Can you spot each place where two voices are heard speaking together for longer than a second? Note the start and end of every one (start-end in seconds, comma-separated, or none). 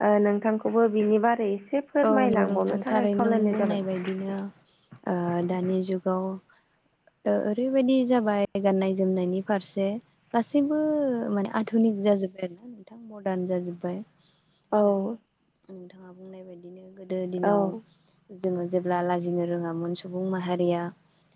2.1-3.8